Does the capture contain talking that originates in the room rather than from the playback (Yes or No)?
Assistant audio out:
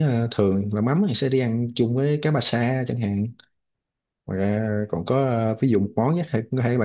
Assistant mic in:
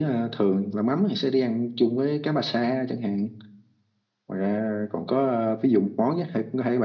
No